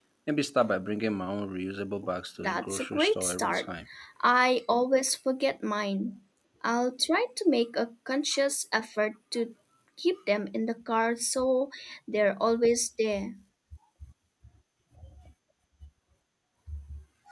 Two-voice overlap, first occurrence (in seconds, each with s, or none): 2.4 s